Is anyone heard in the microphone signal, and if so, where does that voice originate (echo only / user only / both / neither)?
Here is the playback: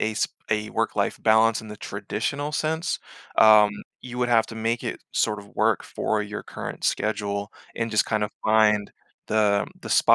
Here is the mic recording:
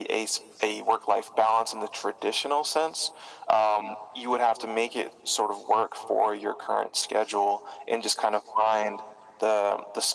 echo only